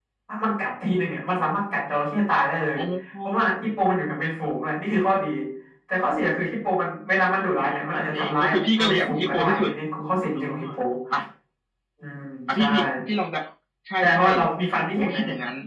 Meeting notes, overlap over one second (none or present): present